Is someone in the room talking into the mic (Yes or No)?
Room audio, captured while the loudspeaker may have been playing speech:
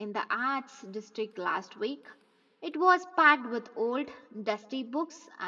Yes